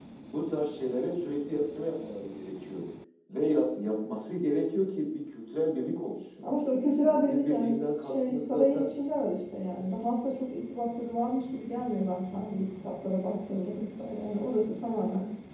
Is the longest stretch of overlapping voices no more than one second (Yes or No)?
No